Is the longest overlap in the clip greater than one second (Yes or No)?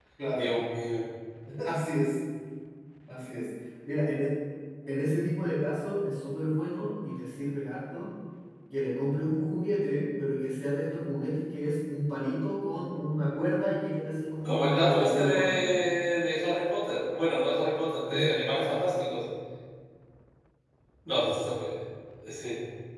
Yes